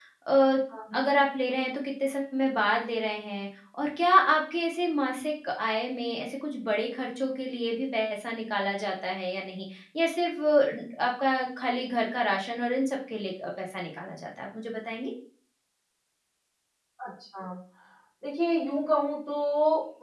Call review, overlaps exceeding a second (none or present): none